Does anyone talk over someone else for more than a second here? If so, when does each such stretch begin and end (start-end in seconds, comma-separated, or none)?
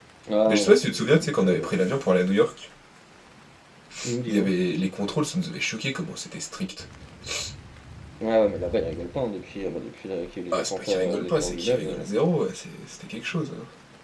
10.5-12.0